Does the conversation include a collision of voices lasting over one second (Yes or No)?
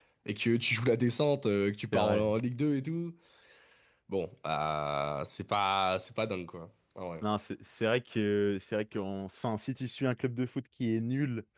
No